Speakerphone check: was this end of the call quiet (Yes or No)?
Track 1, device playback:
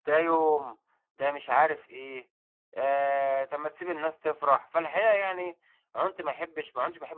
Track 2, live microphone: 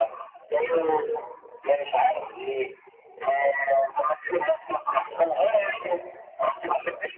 Yes